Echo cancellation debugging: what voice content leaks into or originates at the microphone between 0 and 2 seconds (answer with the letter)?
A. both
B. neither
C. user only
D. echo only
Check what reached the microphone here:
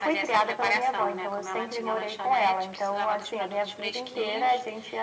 D